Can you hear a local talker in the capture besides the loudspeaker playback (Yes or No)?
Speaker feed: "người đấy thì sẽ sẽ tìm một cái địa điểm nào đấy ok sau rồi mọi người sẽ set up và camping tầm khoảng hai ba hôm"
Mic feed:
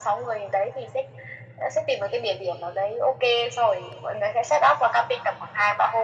No